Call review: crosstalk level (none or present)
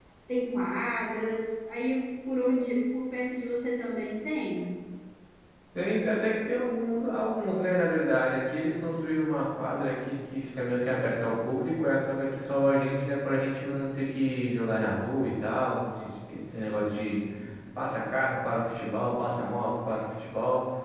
none